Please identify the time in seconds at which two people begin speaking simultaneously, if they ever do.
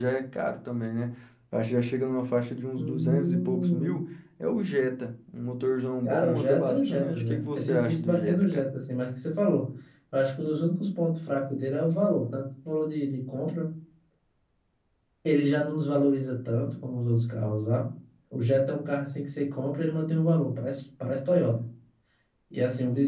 2.8 s

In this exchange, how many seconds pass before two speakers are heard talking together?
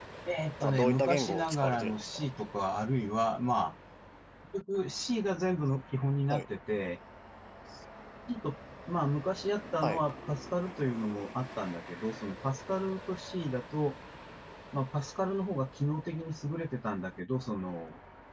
0.6 s

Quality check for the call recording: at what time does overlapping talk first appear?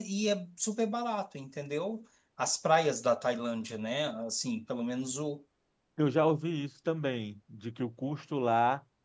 none

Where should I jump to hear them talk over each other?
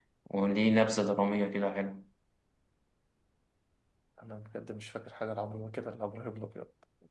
none

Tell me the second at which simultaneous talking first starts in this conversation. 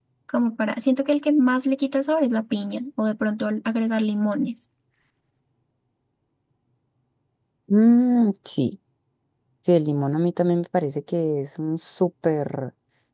none

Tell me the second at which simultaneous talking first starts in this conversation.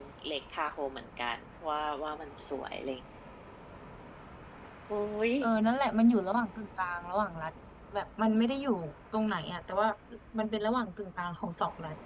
none

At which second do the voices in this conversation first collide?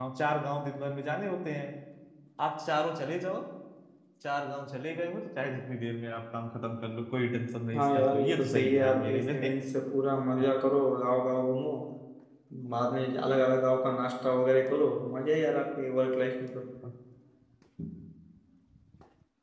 7.7 s

